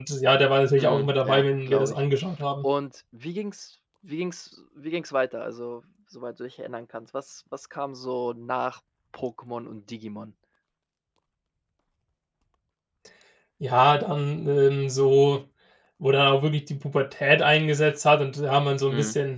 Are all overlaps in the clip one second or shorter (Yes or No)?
No